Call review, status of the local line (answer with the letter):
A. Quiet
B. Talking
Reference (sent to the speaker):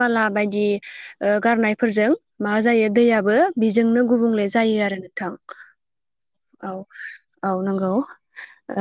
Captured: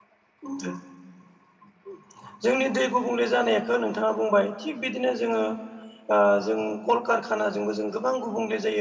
B